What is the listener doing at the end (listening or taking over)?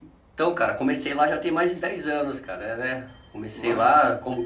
listening